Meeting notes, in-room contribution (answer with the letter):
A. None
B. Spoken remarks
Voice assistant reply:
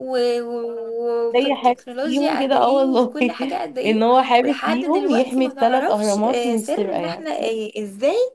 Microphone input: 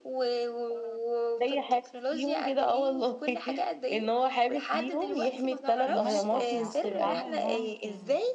B